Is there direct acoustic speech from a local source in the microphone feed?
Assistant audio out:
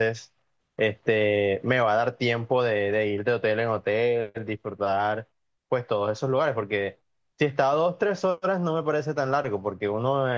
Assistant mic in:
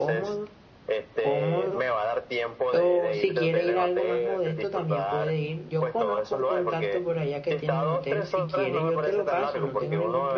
Yes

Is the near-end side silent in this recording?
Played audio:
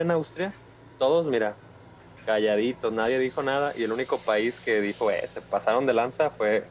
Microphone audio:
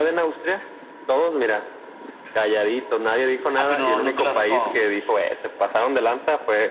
No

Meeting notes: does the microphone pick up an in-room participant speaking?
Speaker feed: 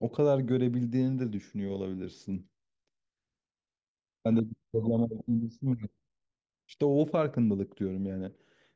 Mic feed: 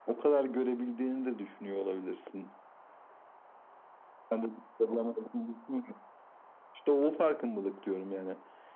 No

